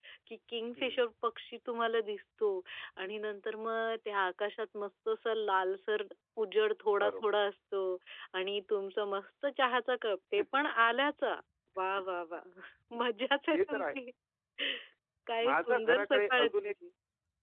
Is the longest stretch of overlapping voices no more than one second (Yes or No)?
No